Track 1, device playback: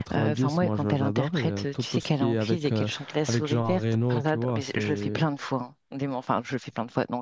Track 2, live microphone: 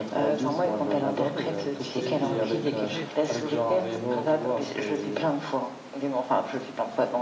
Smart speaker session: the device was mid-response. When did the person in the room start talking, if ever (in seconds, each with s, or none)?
2.0 s